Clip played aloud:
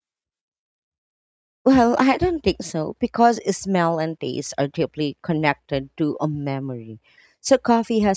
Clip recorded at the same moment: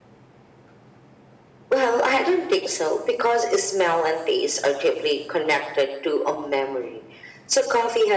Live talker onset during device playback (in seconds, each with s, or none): none